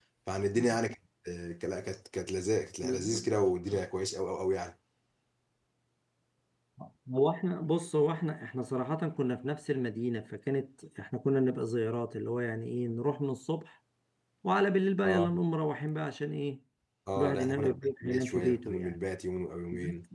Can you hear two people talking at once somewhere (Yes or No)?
Yes